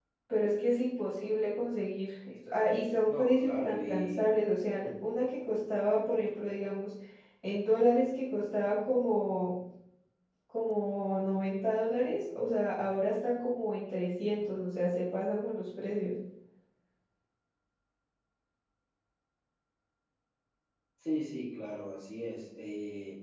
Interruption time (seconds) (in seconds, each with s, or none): 3.0 s